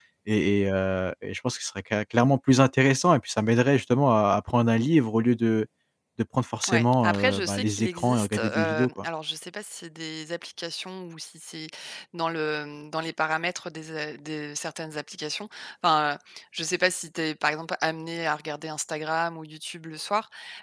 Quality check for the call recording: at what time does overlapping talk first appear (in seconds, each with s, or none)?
6.7 s